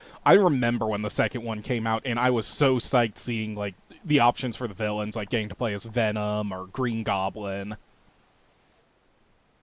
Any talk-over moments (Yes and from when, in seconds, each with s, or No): No